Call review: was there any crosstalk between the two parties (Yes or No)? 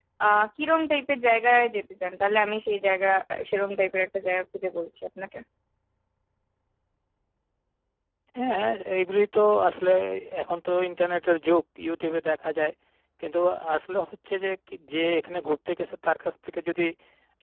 No